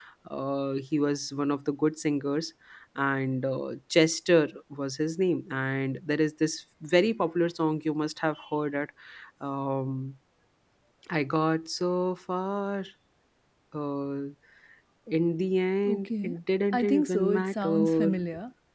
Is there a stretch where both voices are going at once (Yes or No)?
Yes